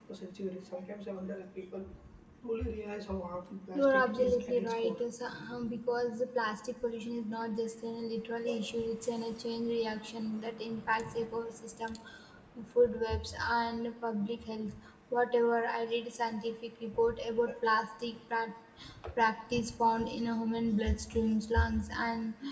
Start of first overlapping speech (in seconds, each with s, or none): 3.8 s